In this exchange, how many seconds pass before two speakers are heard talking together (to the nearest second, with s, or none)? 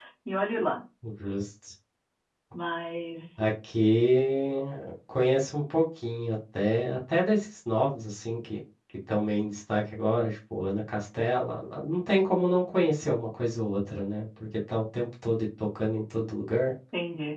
none